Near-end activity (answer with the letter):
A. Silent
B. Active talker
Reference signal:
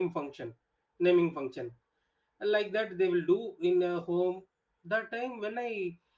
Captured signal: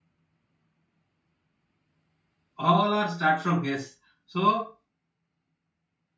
B